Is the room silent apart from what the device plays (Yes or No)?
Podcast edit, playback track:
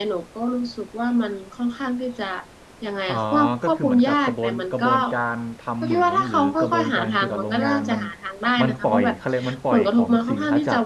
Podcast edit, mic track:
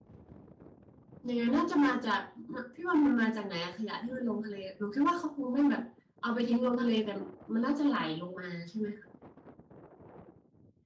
No